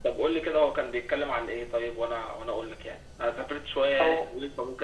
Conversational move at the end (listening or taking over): listening